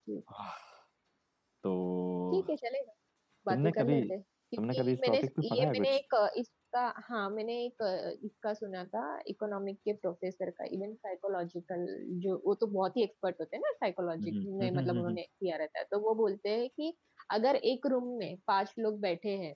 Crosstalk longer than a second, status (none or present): present